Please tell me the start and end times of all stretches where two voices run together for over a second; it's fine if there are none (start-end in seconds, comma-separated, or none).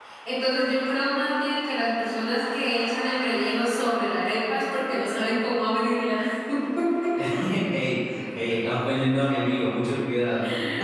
none